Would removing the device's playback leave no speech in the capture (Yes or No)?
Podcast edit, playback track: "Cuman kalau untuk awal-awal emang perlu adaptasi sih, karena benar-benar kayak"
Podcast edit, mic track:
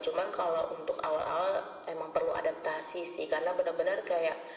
Yes